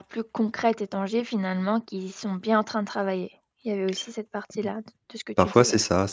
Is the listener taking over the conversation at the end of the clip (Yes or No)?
Yes